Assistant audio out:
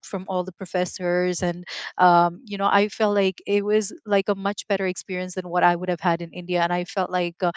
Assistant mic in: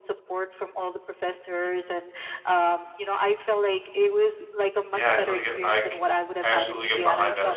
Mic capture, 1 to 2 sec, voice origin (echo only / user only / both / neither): echo only